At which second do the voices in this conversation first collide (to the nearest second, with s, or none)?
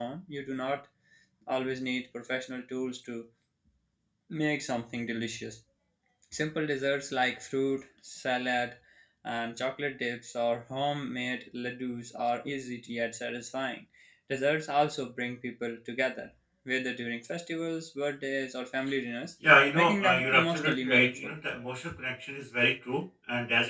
20 s